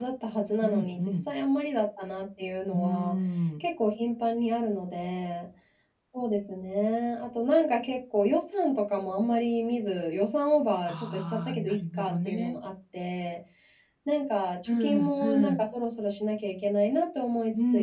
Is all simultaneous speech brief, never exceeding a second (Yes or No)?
No